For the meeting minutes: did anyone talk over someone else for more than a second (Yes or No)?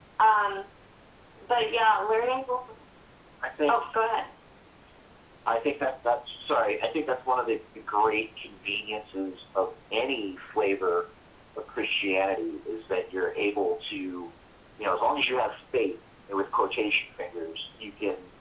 No